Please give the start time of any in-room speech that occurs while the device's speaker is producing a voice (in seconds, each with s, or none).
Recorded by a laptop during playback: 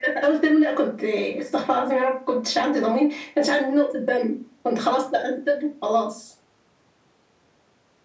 none